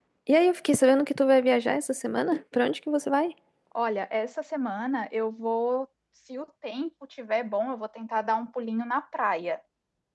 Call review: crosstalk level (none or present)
none